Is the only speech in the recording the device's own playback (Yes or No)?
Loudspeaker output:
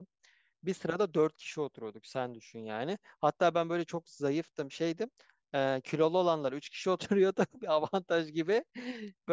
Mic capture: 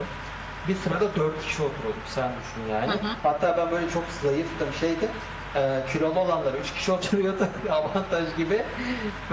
No